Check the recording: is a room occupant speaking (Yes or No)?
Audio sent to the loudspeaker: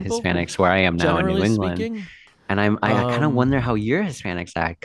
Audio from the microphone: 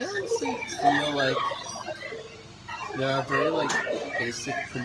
Yes